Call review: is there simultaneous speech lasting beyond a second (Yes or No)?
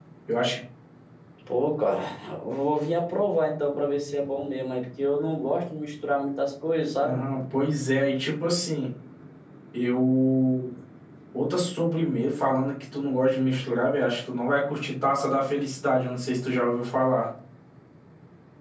No